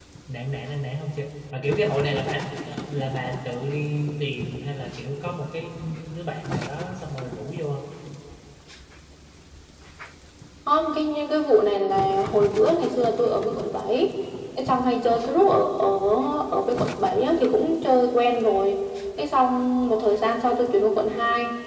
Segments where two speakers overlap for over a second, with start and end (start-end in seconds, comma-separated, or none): none